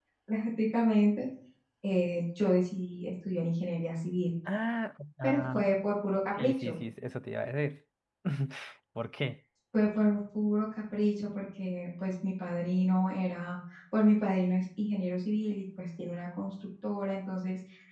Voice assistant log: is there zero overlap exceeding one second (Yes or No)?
Yes